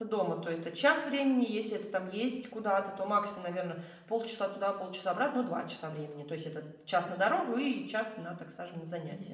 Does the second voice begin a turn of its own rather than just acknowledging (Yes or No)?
Yes